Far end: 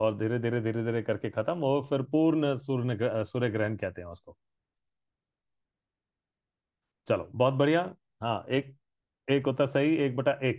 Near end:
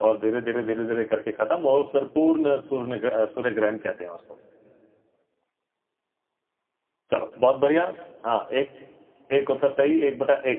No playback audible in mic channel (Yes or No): No